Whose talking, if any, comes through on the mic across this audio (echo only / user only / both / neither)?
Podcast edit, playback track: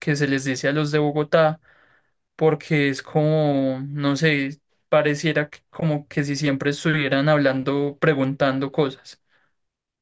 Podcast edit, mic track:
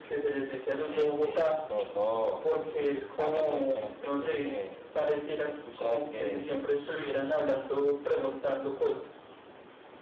both